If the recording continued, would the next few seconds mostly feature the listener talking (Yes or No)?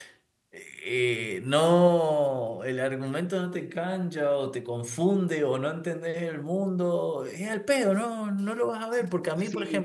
Yes